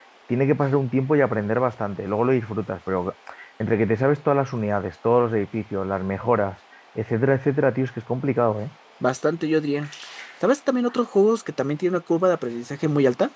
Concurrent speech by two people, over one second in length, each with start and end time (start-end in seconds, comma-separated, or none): none